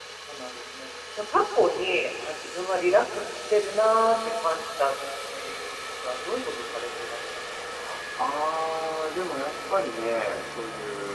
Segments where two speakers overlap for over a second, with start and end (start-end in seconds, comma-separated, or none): none